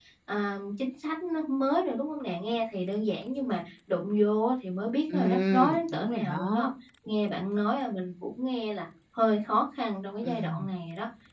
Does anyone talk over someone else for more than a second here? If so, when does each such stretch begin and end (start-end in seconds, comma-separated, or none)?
5.1-6.7